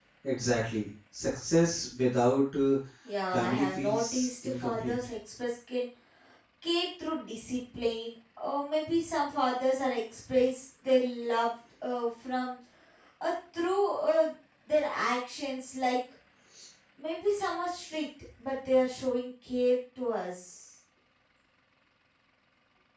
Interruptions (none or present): present